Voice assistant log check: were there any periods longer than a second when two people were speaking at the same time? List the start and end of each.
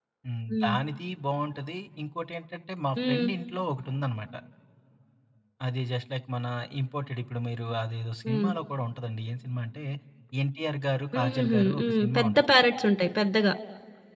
11.1-12.5

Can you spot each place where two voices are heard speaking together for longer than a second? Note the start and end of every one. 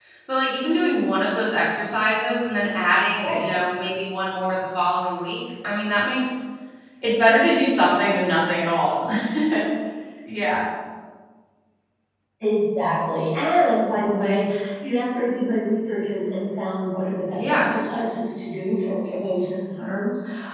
none

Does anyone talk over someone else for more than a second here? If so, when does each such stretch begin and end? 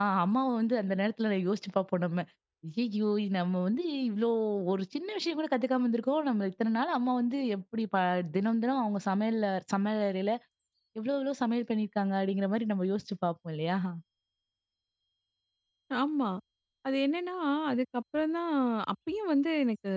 none

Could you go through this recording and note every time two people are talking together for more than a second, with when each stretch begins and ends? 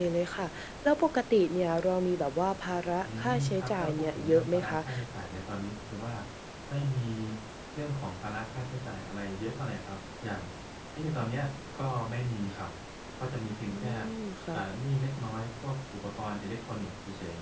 3.0-4.8

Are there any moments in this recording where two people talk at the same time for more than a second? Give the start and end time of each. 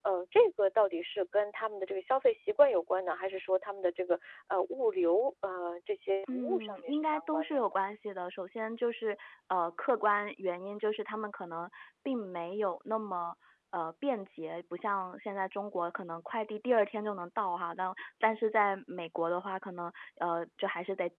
6.3-7.6

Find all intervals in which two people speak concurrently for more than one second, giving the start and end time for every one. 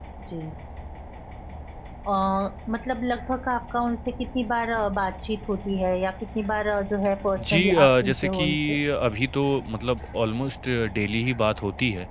7.4-8.8

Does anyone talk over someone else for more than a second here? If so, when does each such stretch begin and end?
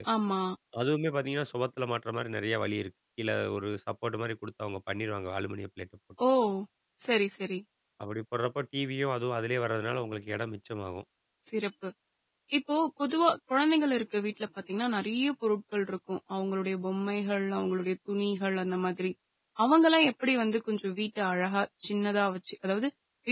none

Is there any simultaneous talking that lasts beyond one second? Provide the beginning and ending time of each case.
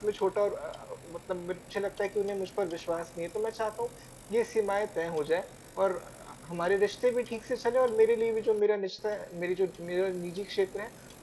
none

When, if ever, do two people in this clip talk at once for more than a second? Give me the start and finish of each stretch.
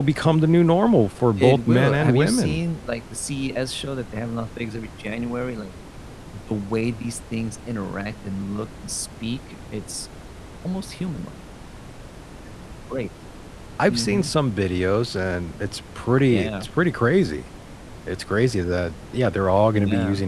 1.4-2.6

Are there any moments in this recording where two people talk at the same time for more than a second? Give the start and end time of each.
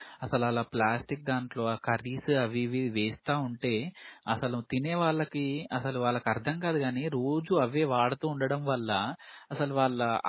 none

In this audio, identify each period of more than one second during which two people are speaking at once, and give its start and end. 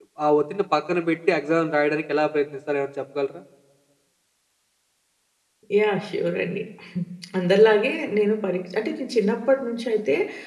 none

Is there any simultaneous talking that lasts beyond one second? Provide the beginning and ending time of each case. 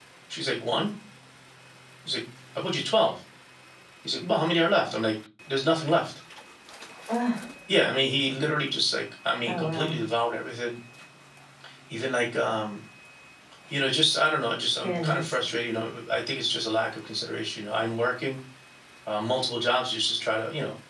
none

